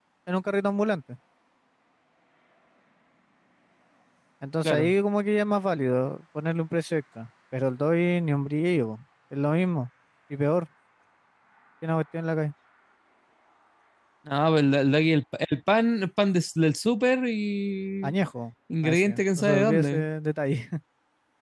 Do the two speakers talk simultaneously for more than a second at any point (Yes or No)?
Yes